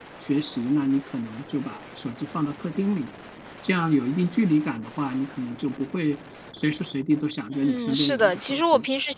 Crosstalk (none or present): present